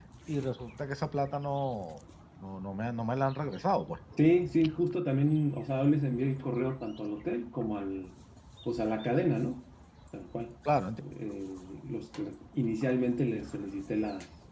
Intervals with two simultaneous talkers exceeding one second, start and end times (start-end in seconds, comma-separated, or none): none